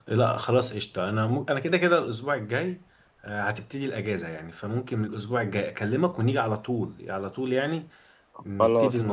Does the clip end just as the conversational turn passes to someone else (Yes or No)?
Yes